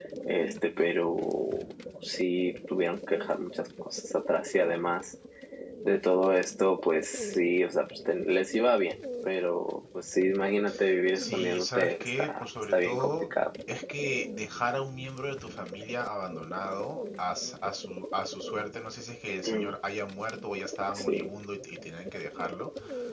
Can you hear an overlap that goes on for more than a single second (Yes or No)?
Yes